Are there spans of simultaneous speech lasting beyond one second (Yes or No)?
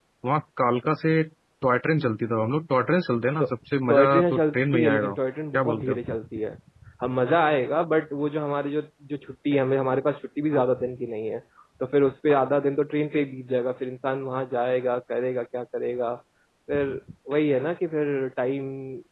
Yes